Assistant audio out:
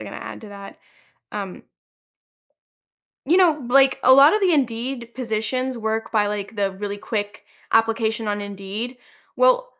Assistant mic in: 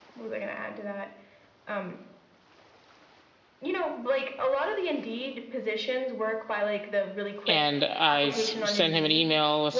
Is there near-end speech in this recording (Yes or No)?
Yes